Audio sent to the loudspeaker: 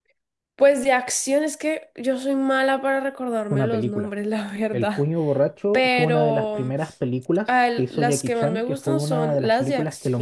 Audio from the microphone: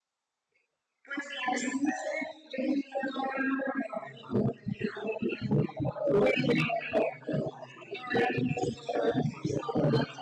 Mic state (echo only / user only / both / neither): echo only